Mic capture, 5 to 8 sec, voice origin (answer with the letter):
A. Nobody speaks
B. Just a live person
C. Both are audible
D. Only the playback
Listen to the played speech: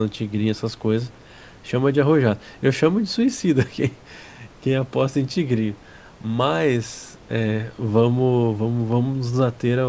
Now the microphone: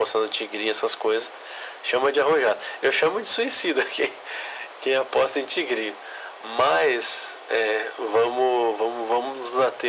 D